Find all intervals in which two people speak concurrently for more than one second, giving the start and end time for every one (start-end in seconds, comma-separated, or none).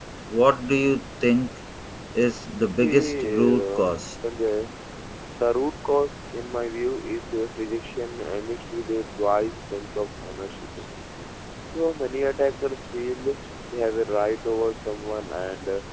2.7-4.1